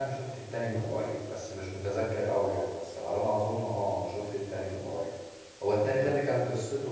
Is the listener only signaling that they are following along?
Yes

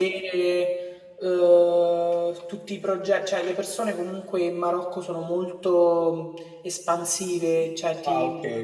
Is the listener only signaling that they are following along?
No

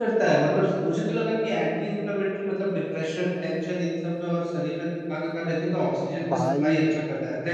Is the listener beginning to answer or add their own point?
No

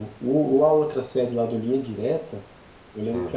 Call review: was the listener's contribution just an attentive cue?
Yes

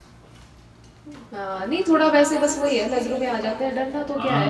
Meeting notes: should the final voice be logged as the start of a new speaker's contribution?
Yes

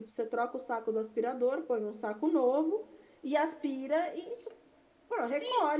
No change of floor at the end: No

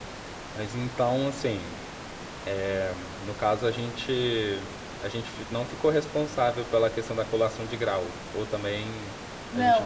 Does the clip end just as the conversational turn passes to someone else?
Yes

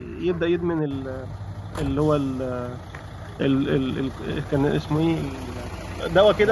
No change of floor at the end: No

